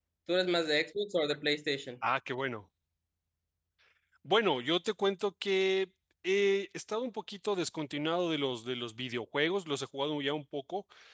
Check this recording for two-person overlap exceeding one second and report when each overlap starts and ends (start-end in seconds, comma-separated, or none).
none